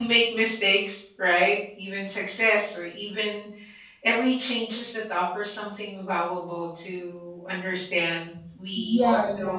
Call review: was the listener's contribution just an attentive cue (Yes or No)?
No